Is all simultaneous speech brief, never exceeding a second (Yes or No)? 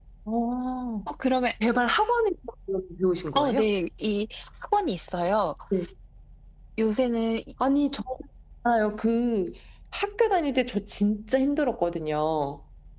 Yes